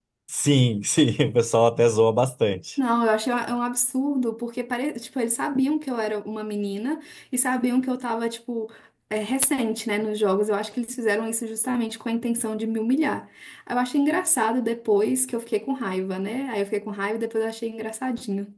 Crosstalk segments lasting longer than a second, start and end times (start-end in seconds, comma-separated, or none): none